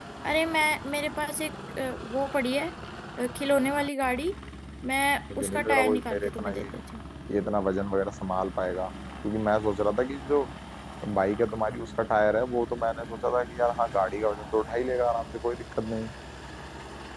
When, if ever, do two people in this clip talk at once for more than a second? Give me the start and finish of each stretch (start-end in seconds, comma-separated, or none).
5.4-6.7